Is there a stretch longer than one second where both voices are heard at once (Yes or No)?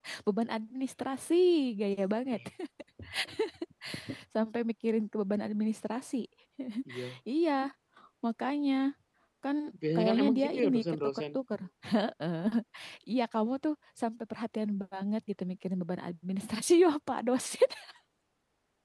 Yes